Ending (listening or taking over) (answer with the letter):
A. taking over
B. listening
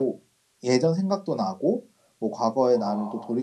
B